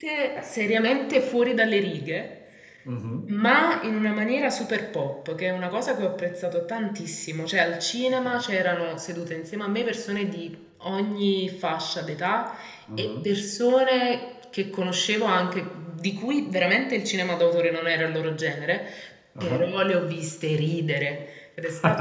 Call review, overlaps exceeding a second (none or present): none